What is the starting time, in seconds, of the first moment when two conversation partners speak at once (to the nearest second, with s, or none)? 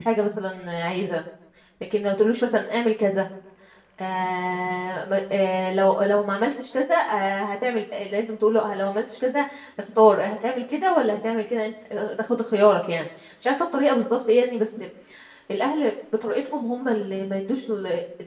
none